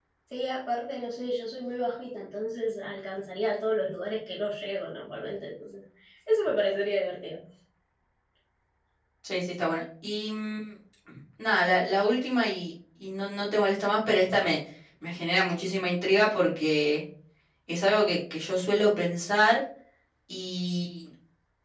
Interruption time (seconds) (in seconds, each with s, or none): none